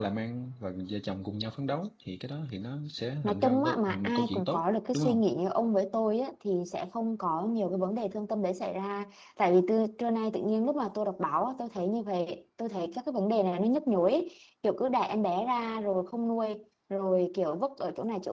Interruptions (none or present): present